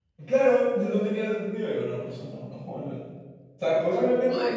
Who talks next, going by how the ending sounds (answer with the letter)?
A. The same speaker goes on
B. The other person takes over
A